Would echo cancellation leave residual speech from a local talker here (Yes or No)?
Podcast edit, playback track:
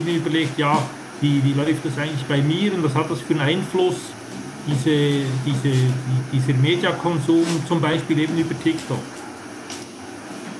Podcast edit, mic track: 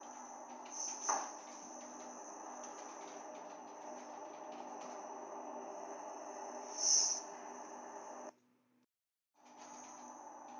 No